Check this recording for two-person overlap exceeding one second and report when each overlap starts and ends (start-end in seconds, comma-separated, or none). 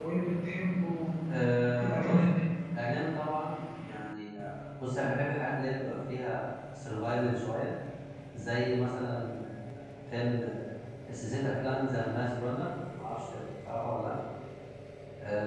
none